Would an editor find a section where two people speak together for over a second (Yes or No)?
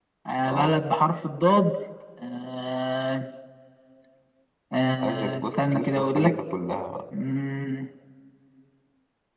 Yes